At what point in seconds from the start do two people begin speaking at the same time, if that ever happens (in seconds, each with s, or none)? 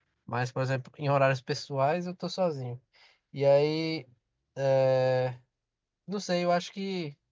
none